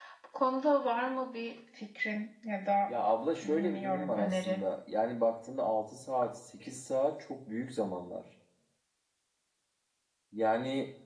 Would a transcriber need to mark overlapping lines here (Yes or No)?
Yes